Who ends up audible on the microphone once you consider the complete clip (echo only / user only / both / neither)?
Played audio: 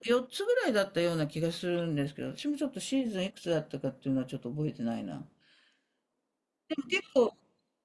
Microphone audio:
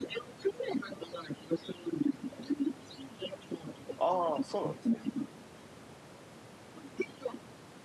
both